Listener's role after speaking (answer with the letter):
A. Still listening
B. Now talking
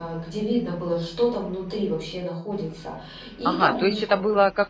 B